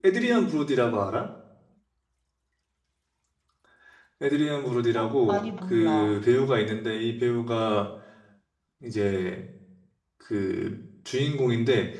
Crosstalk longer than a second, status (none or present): present